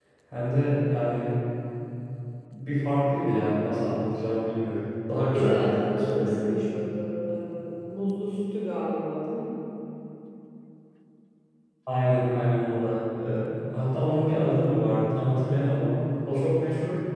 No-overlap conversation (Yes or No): No